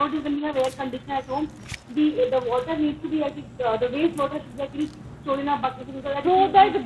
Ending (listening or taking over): taking over